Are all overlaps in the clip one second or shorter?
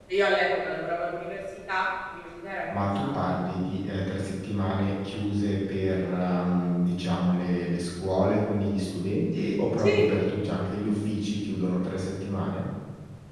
Yes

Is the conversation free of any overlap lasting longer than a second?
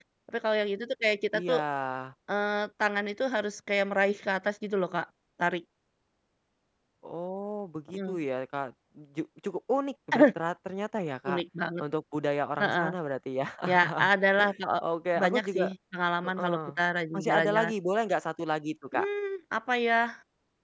Yes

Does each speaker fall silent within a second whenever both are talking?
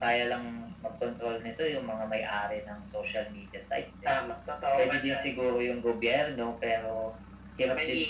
Yes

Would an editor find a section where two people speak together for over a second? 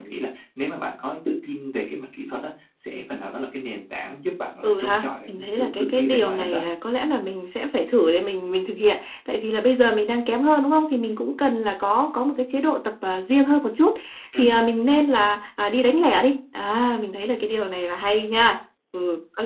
Yes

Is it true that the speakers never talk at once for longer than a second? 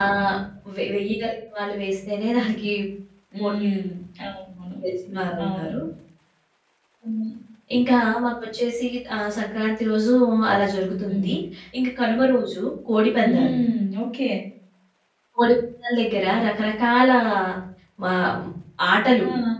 Yes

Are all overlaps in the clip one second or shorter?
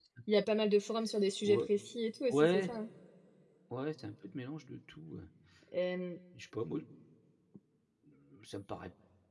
Yes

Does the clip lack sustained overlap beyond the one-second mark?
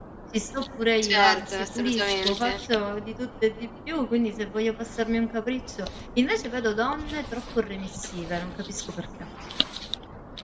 No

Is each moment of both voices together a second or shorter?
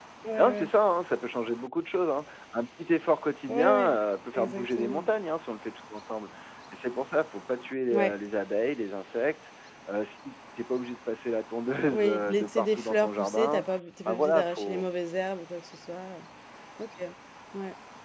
No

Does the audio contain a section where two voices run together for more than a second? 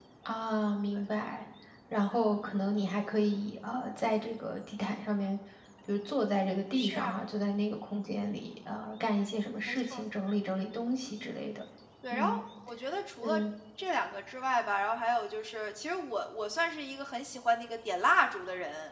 No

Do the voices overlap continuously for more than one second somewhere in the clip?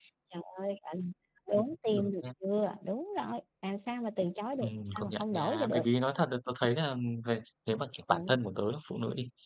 Yes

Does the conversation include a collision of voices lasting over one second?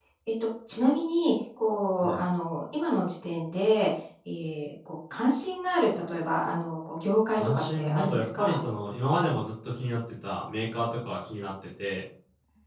Yes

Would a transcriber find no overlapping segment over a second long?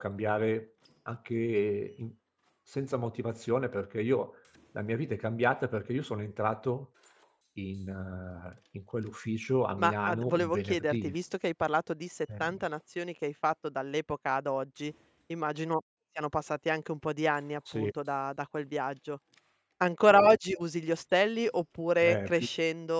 No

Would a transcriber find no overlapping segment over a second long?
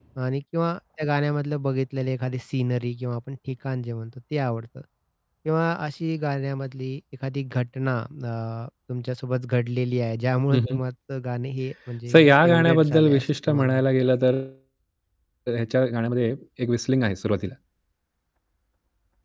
No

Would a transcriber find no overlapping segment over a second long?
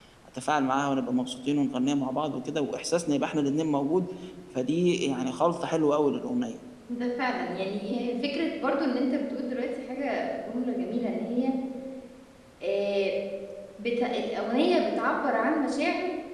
Yes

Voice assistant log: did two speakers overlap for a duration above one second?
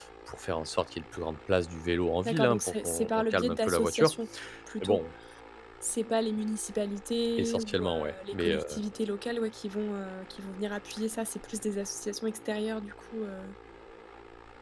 Yes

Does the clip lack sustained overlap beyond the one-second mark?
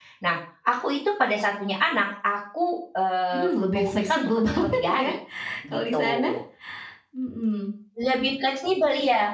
No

